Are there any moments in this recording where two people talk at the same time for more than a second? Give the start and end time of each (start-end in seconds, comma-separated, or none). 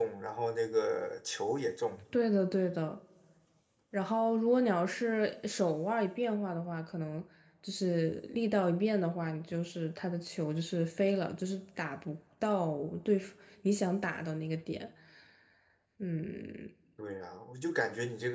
none